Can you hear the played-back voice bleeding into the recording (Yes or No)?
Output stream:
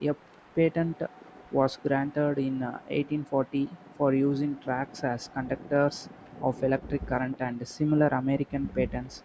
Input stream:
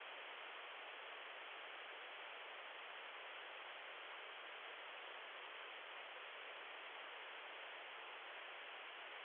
No